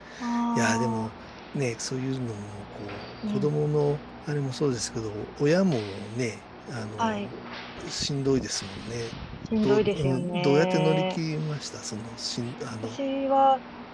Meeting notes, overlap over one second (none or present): present